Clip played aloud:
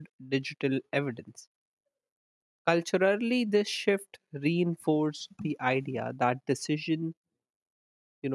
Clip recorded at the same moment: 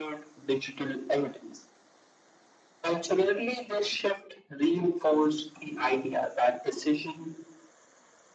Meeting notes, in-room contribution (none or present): none